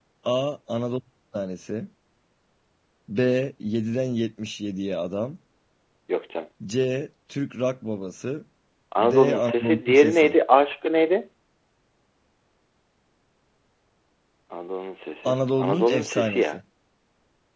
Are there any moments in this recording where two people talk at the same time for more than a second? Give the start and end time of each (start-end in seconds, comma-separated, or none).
9.0-10.4, 15.2-16.6